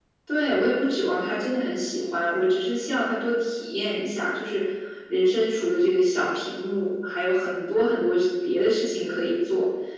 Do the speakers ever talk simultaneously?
No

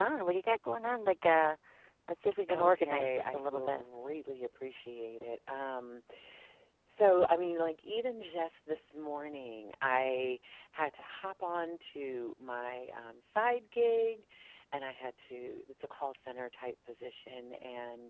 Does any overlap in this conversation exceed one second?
Yes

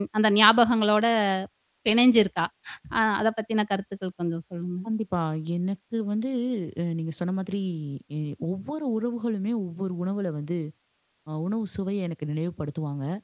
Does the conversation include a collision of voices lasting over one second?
No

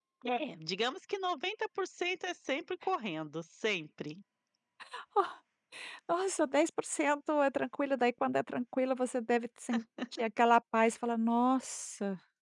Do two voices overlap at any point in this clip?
No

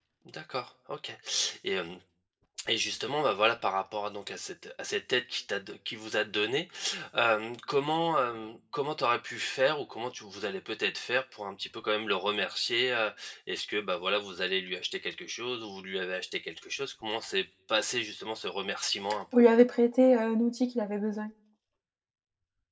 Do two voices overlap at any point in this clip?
No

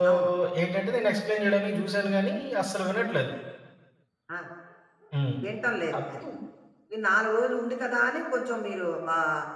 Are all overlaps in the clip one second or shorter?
Yes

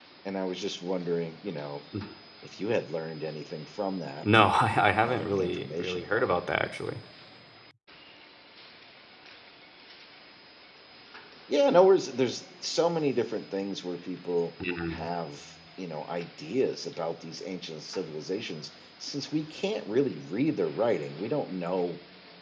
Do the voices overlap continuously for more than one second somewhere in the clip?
Yes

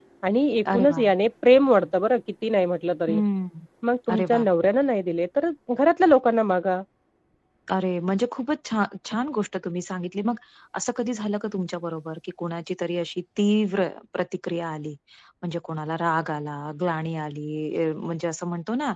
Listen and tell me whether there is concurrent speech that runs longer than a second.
No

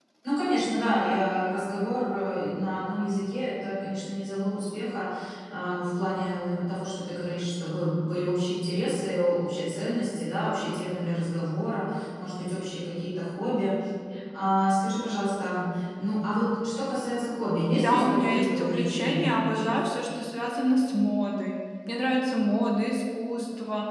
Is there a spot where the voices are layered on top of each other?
Yes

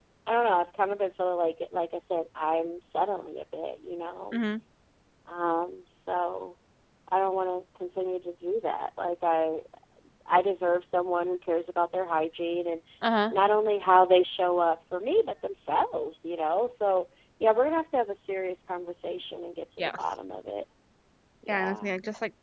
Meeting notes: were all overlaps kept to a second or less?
Yes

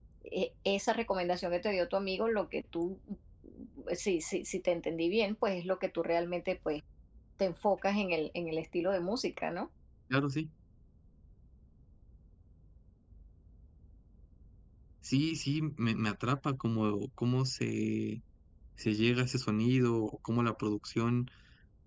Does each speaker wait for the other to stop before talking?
Yes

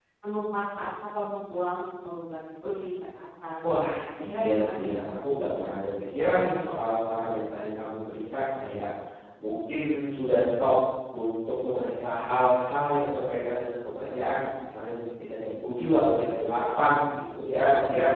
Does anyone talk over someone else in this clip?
Yes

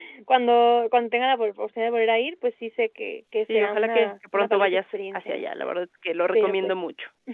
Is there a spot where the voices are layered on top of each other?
Yes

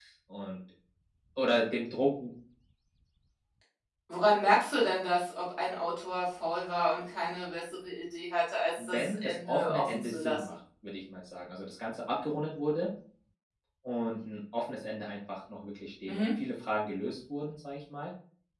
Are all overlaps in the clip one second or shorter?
No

